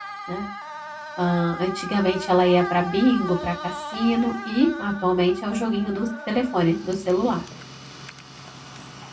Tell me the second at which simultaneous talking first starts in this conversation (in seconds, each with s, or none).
none